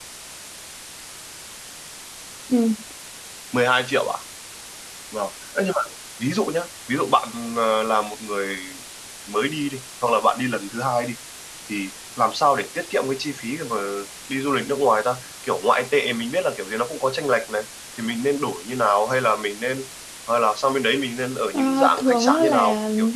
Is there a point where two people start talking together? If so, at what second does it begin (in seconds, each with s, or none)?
21.5 s